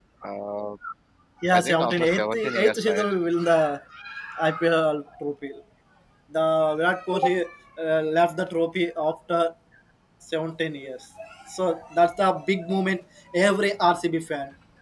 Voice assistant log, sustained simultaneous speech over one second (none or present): present